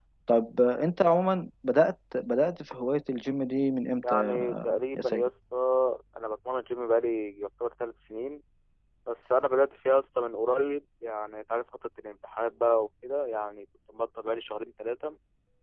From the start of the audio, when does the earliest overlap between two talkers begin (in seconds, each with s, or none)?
4.0 s